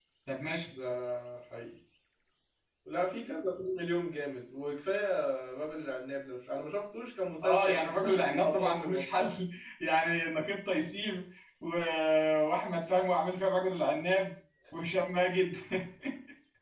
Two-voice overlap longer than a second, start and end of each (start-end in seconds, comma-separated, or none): 7.4-9.3